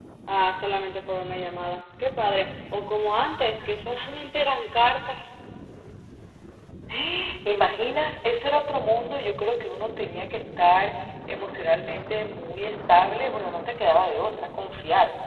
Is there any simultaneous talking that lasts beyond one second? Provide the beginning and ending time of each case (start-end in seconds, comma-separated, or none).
none